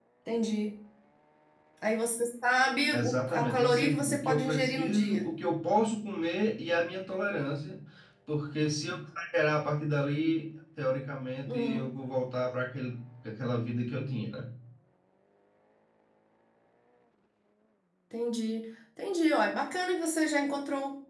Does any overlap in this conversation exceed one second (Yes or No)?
Yes